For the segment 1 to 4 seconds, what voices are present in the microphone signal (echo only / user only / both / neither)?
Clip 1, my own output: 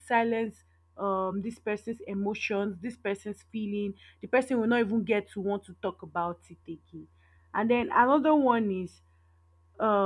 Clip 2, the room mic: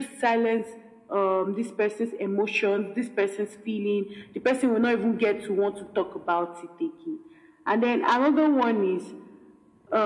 echo only